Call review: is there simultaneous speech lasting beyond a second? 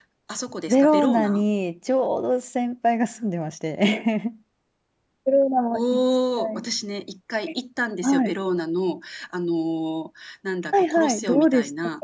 Yes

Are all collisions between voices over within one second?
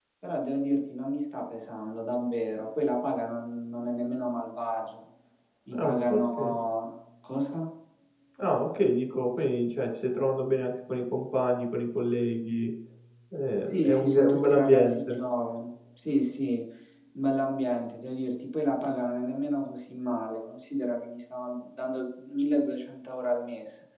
No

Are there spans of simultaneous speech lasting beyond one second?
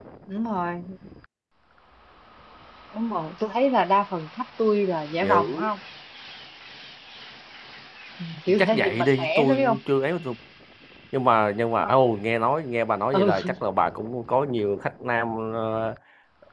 Yes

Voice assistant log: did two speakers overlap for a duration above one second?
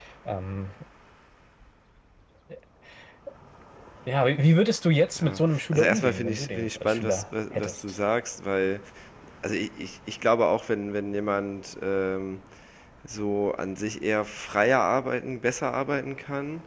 Yes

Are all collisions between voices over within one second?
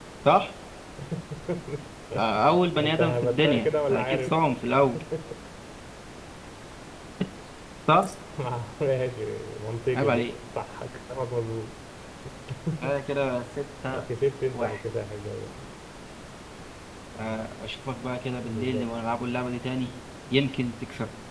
No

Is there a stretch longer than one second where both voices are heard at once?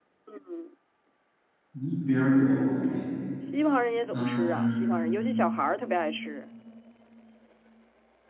Yes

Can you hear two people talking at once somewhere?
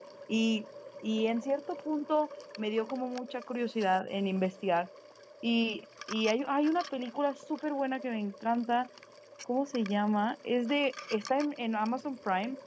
No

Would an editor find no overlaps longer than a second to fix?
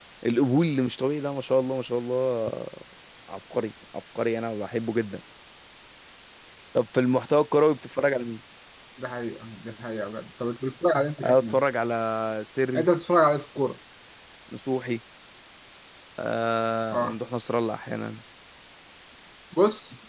Yes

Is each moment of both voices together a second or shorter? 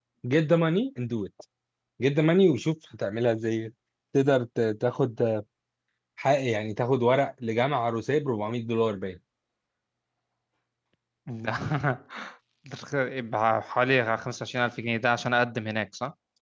Yes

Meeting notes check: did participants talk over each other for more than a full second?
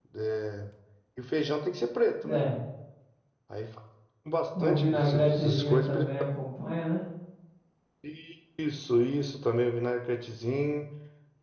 Yes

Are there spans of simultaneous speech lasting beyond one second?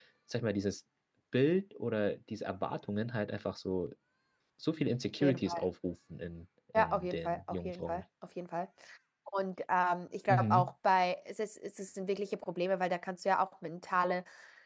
Yes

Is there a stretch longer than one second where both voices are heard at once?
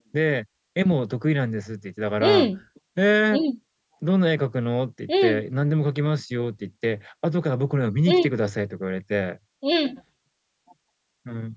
No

